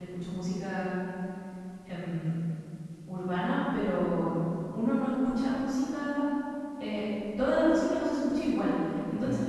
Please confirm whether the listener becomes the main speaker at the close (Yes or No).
No